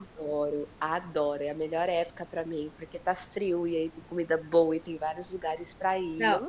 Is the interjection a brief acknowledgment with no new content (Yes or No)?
No